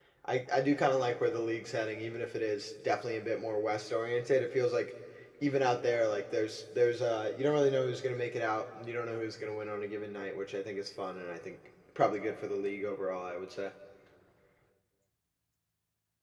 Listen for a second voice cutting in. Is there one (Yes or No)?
No